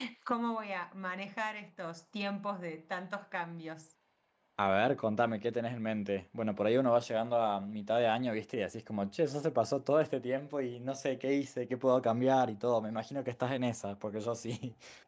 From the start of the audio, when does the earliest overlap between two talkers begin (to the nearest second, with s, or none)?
none